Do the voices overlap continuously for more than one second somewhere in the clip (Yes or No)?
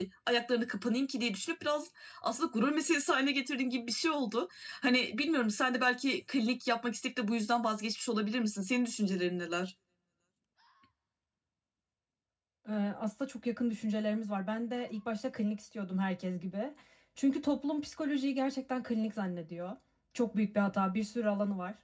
No